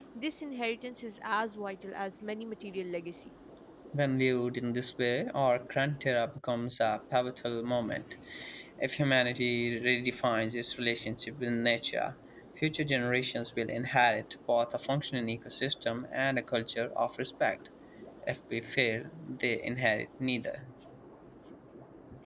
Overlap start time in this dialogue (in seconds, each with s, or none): none